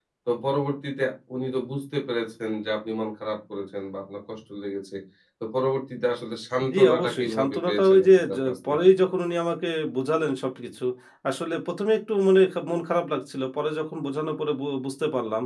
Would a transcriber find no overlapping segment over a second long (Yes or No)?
No